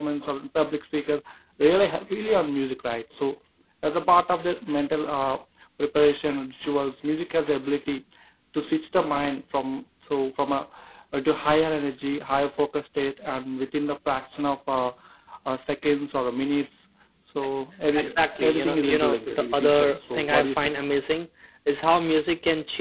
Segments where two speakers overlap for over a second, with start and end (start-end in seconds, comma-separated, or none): 18.4-20.8